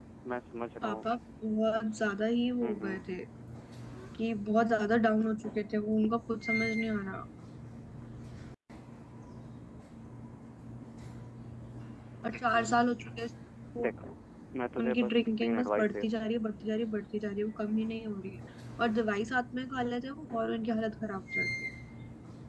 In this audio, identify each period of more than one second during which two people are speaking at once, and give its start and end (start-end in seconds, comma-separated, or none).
14.8-16.1